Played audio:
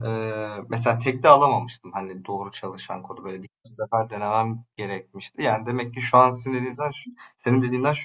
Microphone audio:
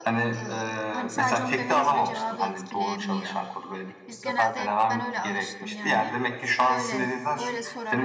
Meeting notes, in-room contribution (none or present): present